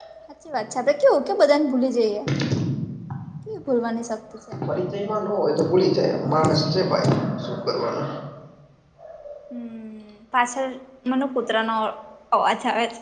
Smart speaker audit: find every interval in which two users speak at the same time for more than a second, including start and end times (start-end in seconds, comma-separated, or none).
none